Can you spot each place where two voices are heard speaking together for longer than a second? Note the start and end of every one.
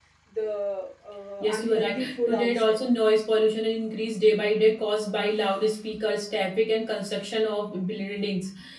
1.4-2.8

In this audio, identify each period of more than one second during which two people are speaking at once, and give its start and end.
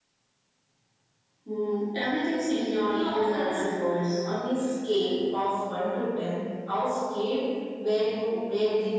2.4-3.7

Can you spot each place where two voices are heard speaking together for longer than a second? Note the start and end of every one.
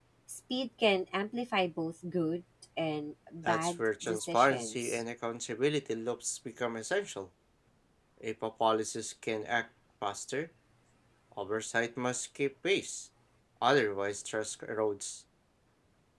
3.4-5.0

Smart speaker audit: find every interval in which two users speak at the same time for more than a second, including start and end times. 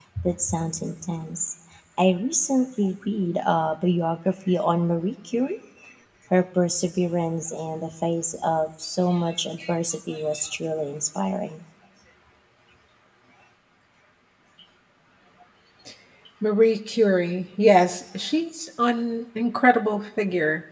none

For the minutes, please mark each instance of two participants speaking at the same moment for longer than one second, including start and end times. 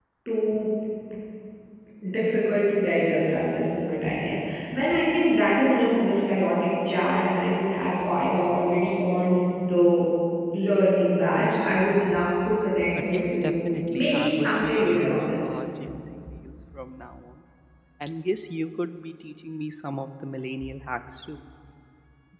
13.0-15.4

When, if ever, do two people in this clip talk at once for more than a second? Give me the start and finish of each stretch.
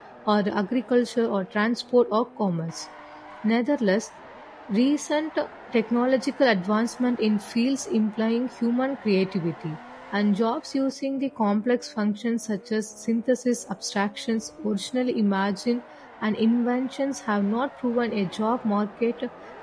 none

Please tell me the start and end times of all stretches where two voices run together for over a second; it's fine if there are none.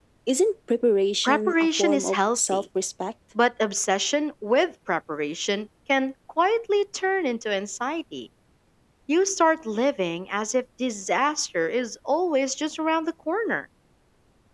1.2-2.6

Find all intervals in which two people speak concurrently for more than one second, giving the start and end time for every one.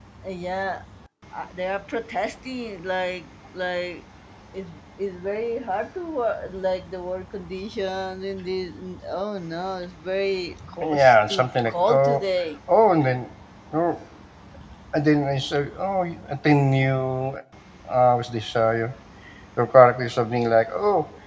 10.8-12.2

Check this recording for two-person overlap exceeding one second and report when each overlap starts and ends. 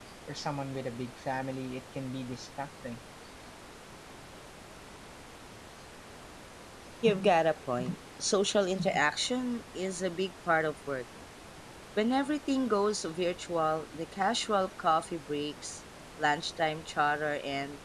none

